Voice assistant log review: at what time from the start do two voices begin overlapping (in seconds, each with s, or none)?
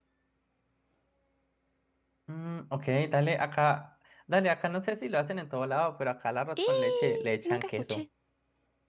6.6 s